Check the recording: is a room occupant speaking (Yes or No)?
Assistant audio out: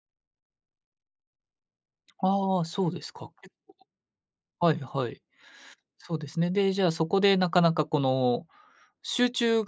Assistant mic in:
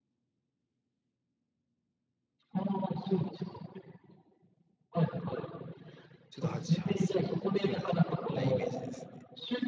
Yes